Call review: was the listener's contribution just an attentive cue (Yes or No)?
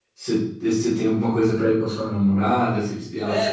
No